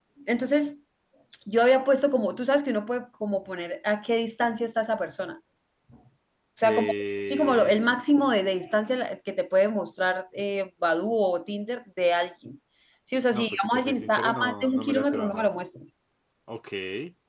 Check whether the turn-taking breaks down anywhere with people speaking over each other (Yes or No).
Yes